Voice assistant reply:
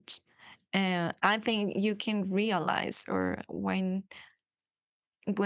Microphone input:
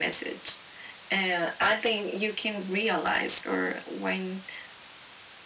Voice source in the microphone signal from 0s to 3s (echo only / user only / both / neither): echo only